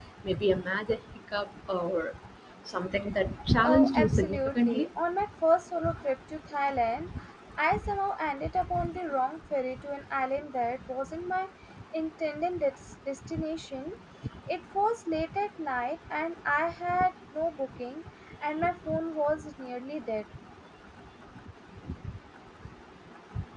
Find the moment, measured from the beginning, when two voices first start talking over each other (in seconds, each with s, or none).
3.6 s